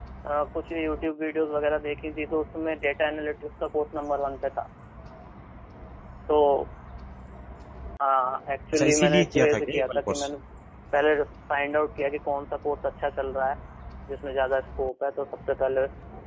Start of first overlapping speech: 8.7 s

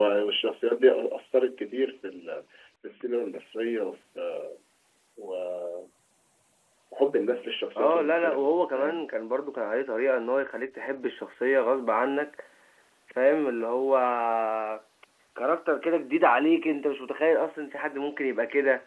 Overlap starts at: 7.8 s

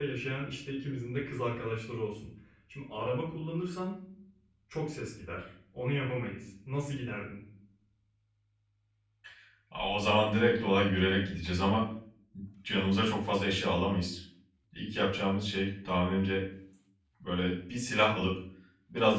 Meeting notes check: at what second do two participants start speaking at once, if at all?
none

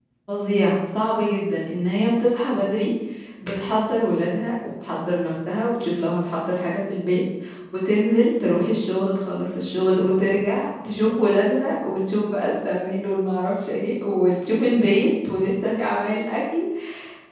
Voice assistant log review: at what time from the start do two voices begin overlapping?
none

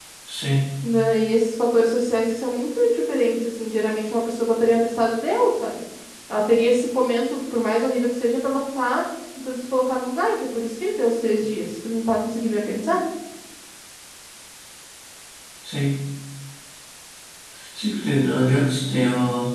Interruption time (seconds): none

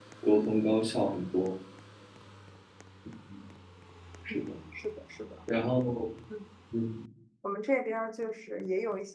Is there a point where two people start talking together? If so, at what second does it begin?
none

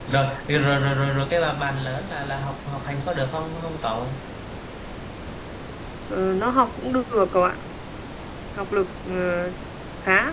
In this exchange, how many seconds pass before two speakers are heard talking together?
none

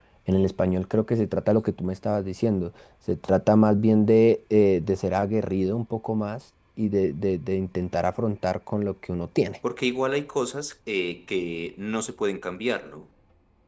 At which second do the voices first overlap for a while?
none

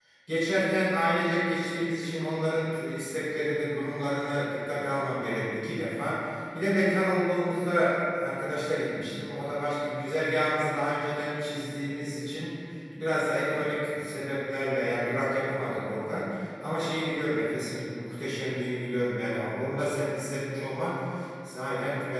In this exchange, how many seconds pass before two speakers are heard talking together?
none

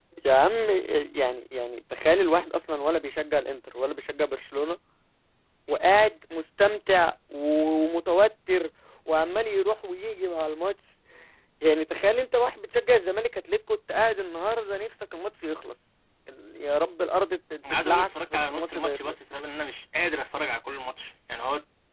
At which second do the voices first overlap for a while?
17.6 s

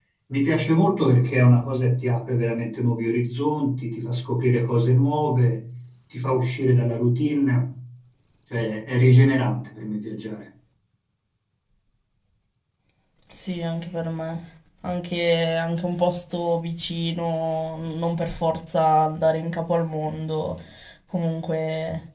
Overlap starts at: none

